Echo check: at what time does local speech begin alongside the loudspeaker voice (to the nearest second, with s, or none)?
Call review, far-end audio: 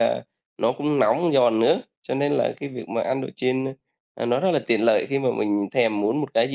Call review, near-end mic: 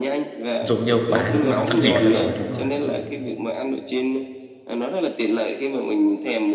1 s